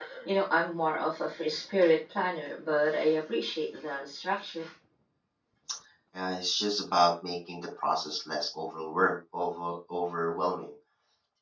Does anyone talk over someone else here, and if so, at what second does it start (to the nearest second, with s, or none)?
none